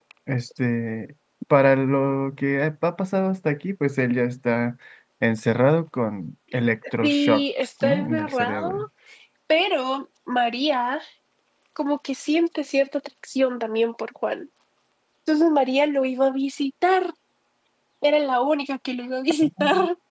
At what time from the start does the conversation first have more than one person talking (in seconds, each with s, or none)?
7.0 s